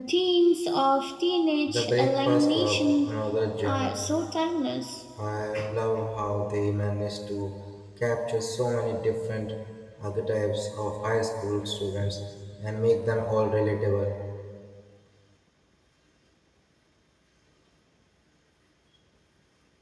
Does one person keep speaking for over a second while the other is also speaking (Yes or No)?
Yes